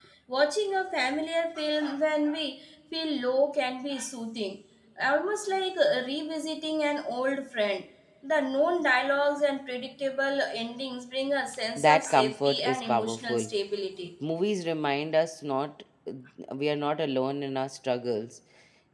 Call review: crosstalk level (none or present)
present